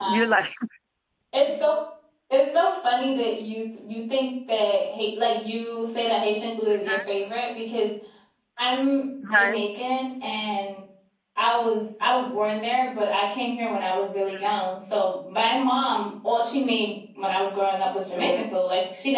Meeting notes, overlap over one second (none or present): none